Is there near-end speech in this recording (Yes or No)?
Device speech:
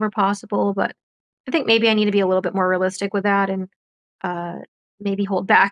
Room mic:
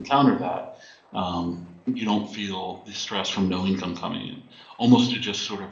Yes